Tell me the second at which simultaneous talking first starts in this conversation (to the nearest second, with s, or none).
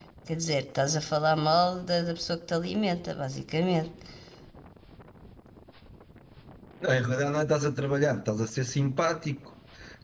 none